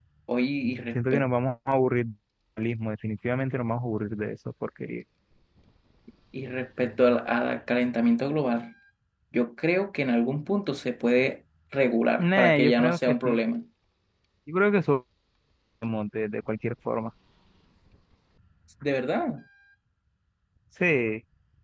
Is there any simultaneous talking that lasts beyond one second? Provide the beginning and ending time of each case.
12.2-13.4

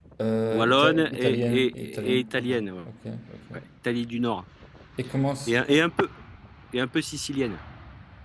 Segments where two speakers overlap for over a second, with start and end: 0.5-2.5

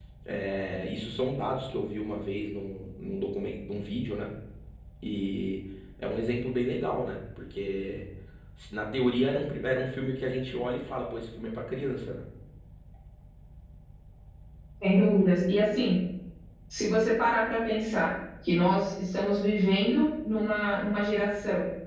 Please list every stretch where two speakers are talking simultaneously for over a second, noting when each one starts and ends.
none

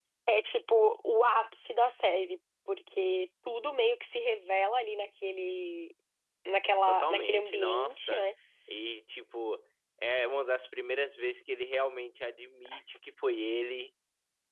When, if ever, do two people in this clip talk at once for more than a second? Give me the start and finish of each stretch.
6.9-8.2

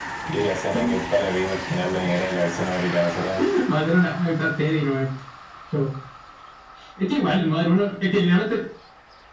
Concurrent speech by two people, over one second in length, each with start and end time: none

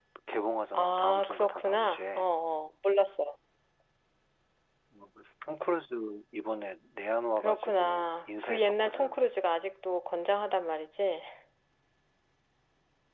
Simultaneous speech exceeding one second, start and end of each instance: 0.7-2.3, 7.4-9.2

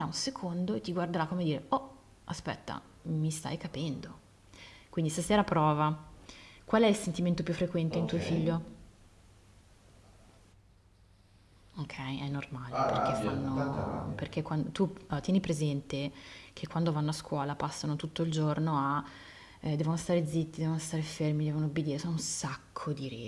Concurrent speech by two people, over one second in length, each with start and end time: 12.7-14.2

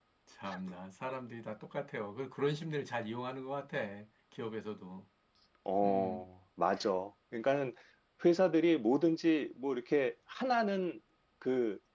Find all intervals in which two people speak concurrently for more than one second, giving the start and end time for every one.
none

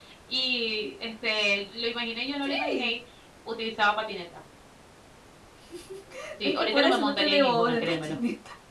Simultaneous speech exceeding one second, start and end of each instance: 6.4-8.2

